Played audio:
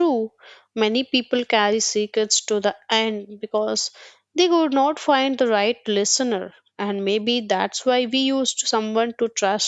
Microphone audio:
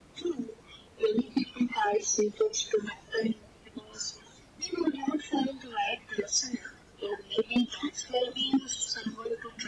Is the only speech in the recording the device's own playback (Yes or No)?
Yes